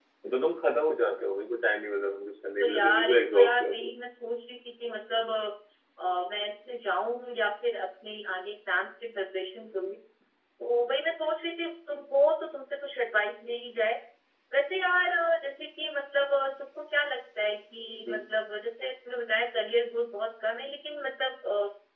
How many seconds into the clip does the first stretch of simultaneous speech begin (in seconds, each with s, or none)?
2.6 s